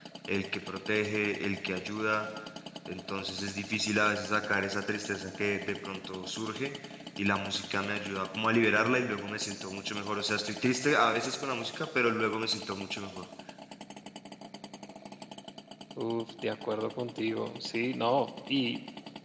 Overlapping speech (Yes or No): No